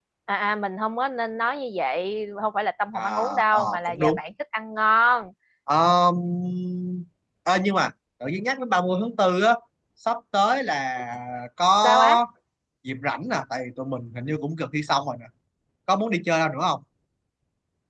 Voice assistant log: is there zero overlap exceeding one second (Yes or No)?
No